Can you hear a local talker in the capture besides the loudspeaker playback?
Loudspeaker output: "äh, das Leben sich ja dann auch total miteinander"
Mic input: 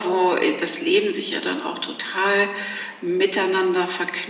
No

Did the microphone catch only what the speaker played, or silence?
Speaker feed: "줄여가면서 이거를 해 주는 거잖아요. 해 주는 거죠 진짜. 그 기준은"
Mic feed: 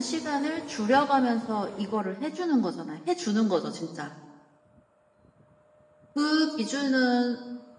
Yes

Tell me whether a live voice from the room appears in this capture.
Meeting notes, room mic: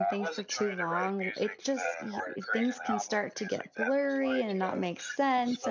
Yes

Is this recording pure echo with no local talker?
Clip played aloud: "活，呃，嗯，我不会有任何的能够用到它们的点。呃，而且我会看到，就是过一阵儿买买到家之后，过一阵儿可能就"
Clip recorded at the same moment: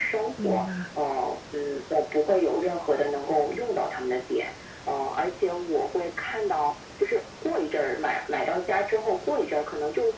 No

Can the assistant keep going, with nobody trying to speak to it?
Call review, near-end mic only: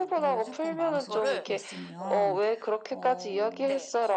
No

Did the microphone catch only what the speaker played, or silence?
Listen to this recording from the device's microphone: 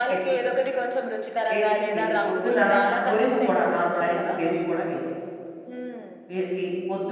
No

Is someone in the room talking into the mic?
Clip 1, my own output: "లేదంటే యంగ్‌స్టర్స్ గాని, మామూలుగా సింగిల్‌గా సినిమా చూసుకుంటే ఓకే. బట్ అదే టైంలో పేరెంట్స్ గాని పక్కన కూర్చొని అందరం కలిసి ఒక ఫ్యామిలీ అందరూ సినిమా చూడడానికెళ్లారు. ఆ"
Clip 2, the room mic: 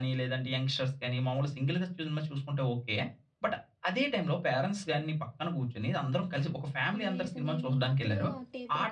Yes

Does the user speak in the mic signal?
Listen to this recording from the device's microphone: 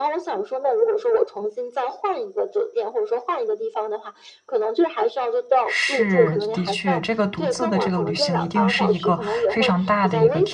Yes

